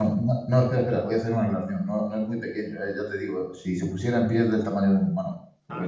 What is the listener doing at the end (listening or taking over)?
taking over